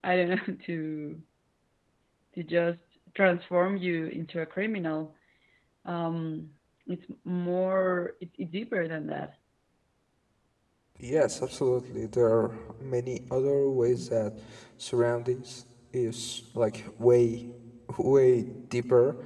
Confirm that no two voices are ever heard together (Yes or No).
Yes